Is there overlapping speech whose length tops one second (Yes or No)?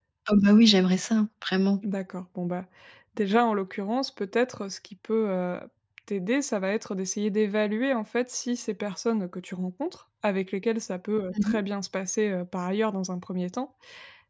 No